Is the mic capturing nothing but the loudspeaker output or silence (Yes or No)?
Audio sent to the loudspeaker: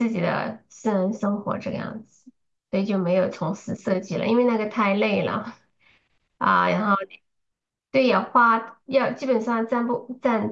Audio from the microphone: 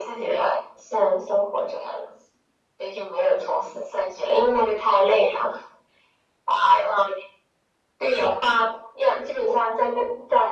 Yes